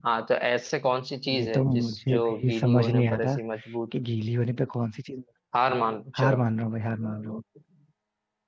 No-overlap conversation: No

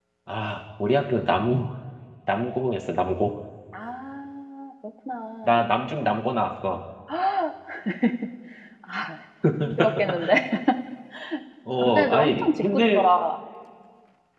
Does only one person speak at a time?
No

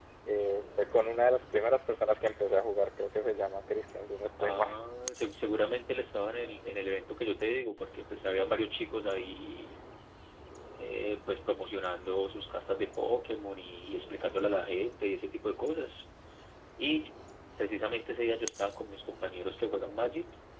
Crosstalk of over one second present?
No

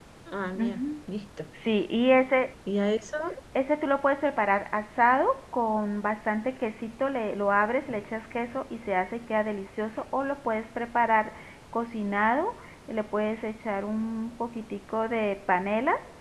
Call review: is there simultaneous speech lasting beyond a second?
No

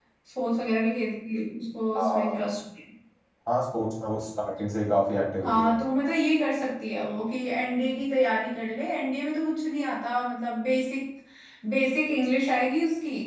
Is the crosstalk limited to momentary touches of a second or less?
Yes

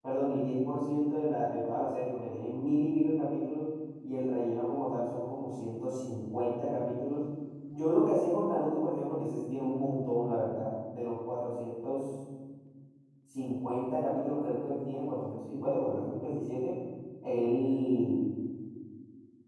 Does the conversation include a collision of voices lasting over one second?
No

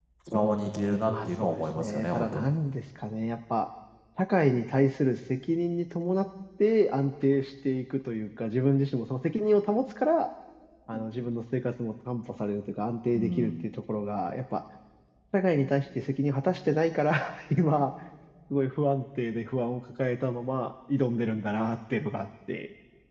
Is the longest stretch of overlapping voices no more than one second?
No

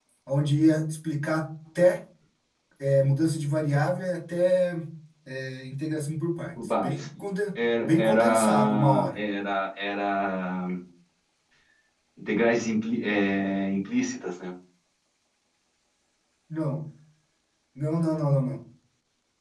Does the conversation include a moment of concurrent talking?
Yes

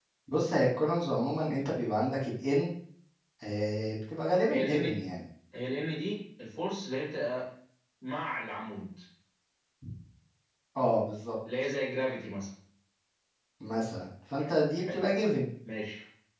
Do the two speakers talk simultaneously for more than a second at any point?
No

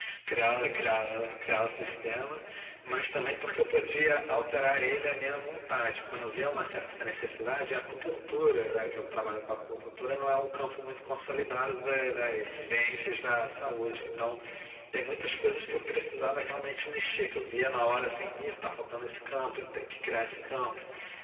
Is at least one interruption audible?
No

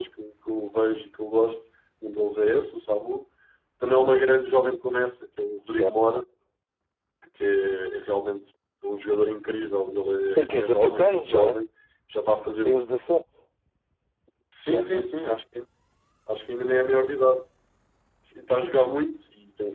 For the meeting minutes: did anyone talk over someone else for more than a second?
Yes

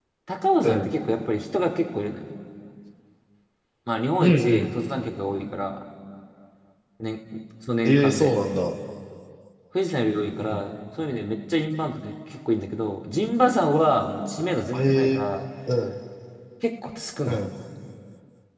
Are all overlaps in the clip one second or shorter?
Yes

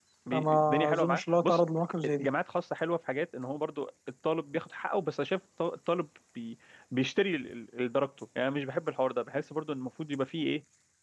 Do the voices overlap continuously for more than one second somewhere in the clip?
Yes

